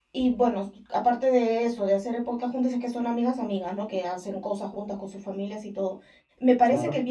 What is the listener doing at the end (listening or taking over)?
listening